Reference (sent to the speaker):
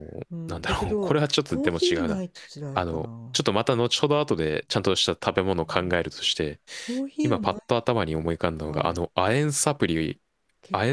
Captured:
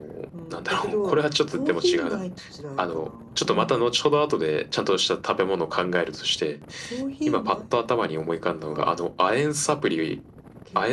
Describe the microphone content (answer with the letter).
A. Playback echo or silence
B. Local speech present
B